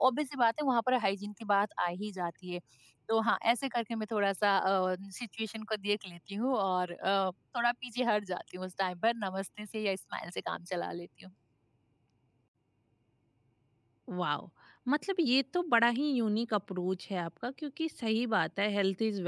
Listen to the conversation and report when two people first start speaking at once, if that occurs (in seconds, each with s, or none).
none